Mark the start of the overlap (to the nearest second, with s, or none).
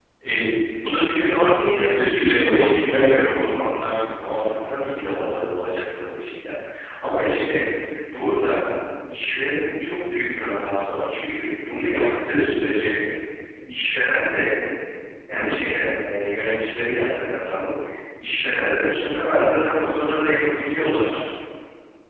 2 s